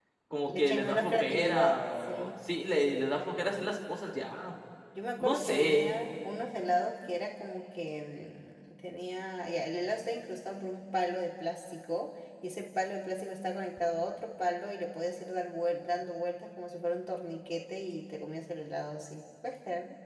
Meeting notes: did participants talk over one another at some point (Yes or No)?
Yes